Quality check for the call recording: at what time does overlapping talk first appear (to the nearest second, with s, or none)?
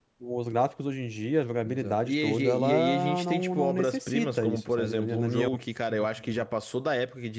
2 s